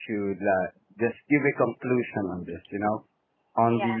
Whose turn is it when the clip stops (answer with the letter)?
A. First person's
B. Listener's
A